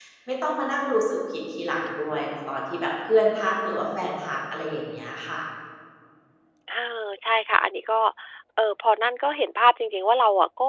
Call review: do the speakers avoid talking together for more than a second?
Yes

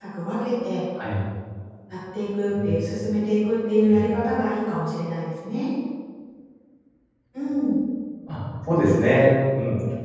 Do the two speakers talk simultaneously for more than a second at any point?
No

